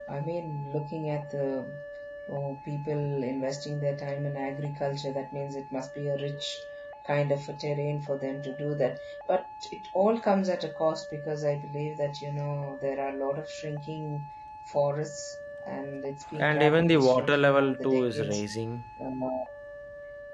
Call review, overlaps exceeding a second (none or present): present